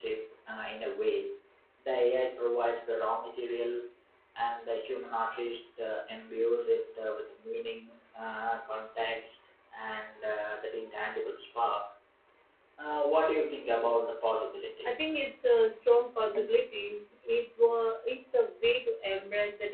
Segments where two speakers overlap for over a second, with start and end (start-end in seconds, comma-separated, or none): none